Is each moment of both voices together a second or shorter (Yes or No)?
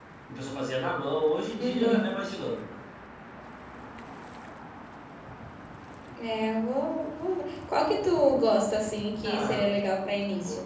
Yes